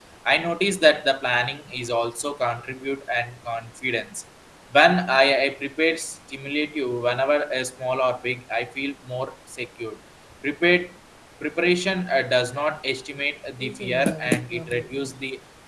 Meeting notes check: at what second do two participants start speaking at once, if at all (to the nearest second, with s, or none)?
14 s